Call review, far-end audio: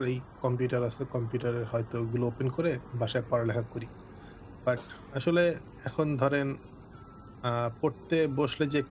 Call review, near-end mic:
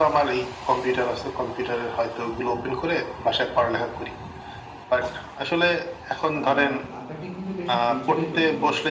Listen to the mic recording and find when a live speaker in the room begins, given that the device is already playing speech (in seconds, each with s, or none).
6.4 s